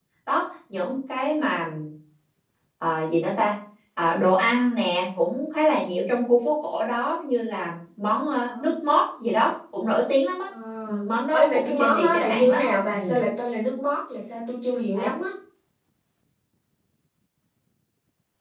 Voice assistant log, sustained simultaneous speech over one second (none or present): present